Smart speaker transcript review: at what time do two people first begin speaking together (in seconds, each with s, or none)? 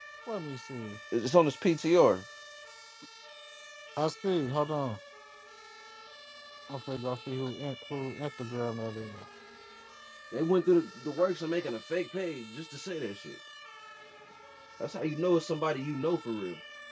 none